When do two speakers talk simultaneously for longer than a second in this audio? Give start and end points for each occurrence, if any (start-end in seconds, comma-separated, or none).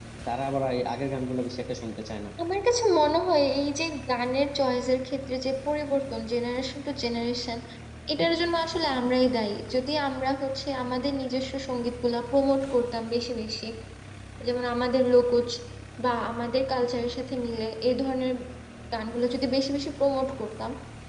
none